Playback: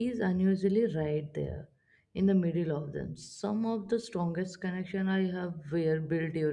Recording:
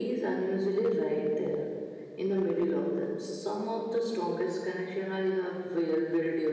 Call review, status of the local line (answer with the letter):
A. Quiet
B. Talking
A